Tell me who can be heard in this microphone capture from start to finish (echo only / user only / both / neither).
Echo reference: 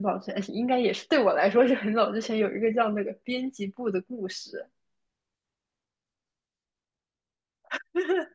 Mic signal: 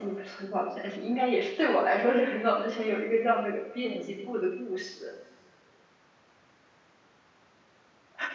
both